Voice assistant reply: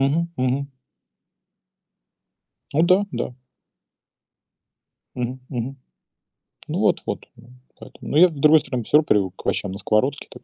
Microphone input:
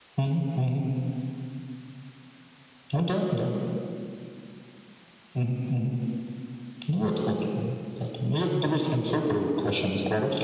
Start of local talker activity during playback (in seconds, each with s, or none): none